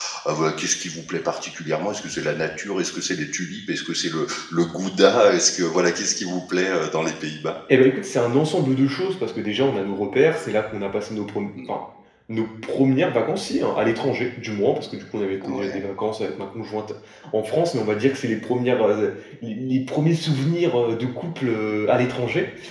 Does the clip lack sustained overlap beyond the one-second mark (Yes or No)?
Yes